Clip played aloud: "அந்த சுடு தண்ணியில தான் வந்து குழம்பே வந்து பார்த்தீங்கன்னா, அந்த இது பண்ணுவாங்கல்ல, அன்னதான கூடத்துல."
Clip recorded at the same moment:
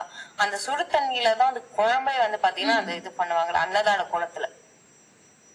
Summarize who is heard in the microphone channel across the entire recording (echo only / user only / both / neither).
both